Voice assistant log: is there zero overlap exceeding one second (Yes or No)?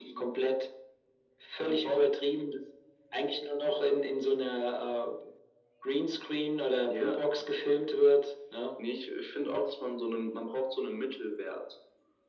Yes